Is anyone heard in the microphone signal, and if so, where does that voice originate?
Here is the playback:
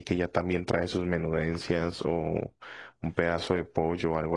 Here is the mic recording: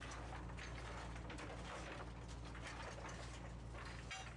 neither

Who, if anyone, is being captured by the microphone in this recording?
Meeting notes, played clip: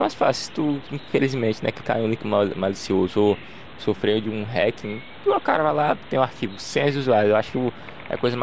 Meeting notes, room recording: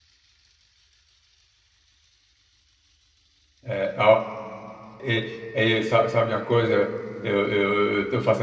user only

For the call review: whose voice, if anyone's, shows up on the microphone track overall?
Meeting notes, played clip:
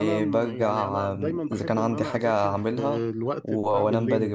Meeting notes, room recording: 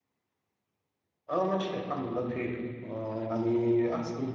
user only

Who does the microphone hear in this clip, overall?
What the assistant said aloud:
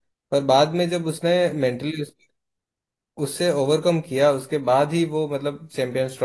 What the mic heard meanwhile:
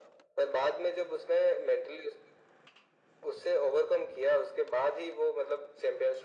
echo only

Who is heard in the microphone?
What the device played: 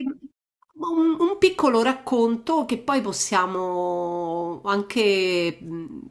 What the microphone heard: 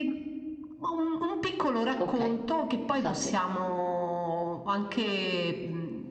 both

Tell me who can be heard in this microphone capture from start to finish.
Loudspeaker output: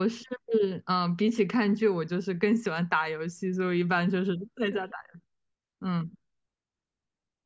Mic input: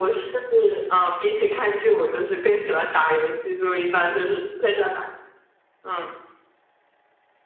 echo only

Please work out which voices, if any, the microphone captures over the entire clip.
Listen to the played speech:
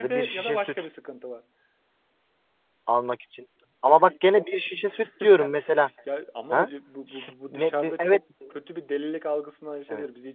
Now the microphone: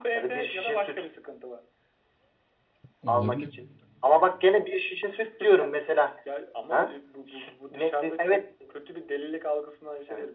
both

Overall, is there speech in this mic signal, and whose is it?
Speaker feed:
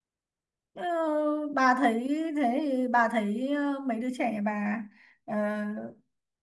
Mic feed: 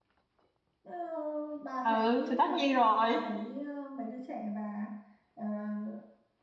both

